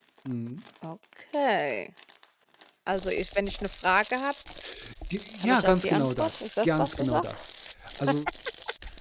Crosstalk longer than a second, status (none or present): present